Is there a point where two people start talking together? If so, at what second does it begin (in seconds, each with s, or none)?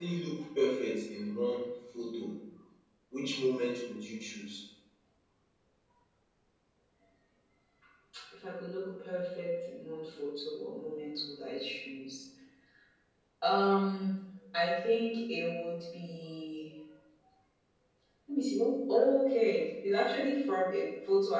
none